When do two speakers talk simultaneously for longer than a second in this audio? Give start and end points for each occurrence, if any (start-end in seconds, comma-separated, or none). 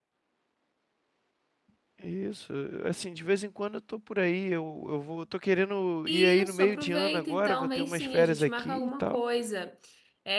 6.1-9.2